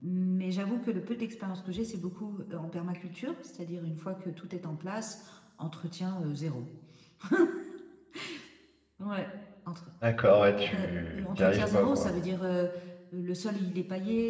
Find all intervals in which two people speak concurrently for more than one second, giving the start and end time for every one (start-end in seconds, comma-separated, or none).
10.7-12.1